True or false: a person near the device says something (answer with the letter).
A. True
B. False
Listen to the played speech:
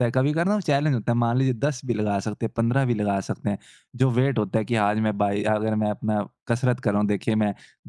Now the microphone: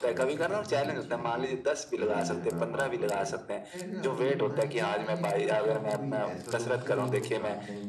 A